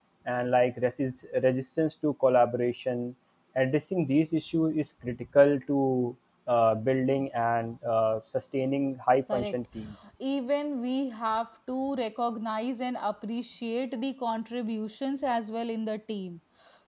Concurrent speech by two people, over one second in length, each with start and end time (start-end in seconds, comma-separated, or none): none